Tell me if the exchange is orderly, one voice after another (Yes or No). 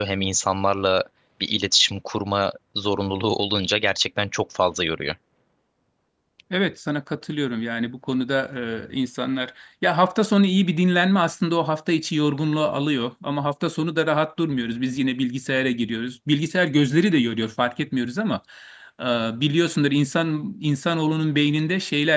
Yes